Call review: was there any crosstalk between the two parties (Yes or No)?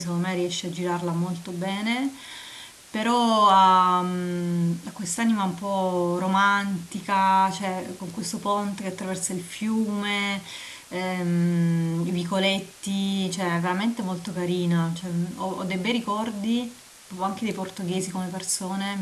No